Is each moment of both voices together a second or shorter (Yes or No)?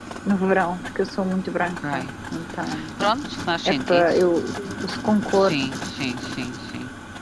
Yes